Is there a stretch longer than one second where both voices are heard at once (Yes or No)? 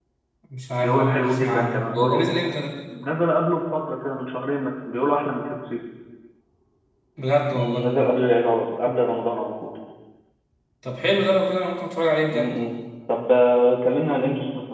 Yes